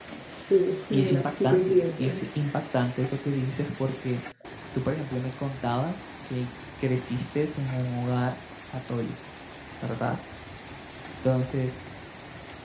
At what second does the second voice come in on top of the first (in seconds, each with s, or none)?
0.9 s